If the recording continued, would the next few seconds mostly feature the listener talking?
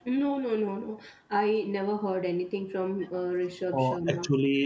Yes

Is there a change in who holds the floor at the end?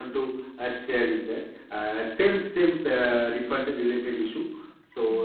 No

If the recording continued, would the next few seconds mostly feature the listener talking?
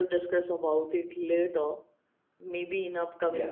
No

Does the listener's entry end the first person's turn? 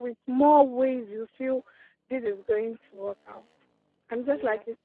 No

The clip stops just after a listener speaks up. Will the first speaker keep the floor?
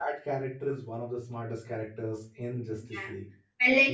No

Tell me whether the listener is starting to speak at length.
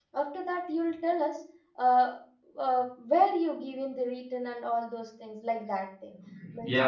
Yes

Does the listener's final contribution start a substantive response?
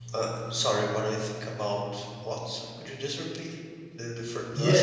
Yes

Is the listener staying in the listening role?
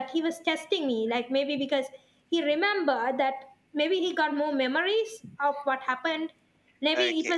Yes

